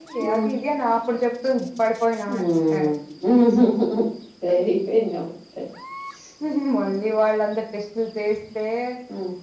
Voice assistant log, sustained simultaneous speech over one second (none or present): none